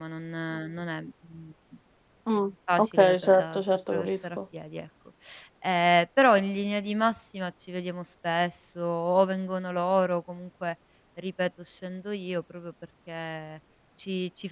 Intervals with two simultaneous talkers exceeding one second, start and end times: 2.8-4.4

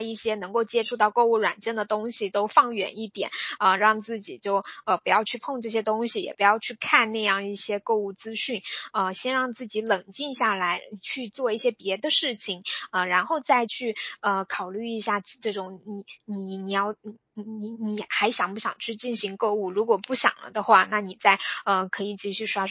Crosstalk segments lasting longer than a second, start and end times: none

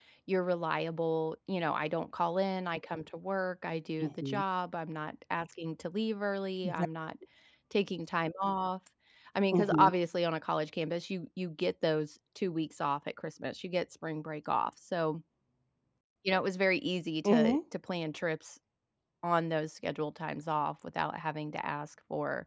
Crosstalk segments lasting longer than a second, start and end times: none

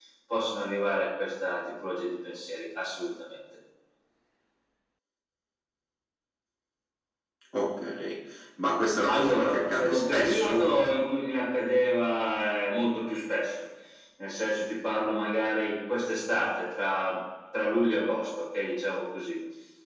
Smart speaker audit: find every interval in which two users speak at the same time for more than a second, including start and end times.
9.1-10.6

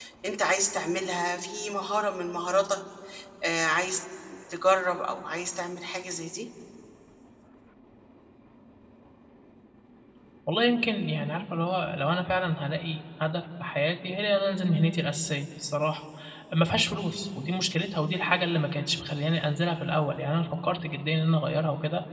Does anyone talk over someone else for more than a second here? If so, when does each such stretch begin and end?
none

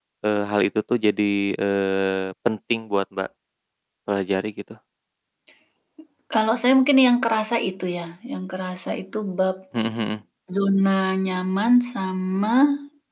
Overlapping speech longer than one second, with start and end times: none

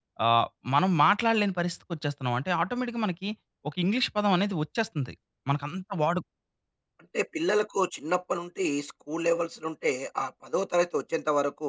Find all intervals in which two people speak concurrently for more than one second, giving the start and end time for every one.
none

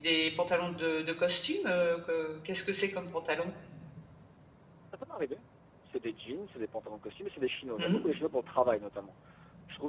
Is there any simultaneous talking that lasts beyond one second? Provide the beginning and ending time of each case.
none

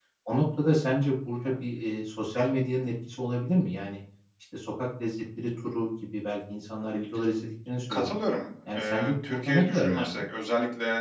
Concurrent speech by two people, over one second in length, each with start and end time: 8.7-10.2

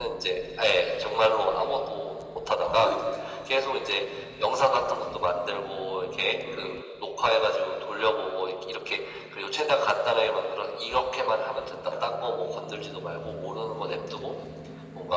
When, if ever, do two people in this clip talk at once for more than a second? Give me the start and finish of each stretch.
none

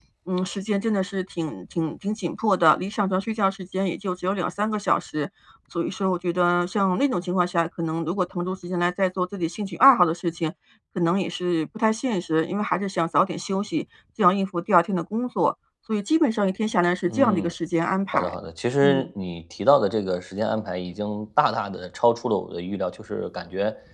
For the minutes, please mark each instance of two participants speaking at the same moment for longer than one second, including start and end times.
none

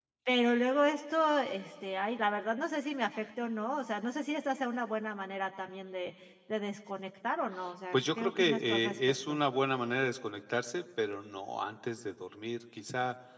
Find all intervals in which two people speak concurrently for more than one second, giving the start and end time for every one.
7.9-9.4

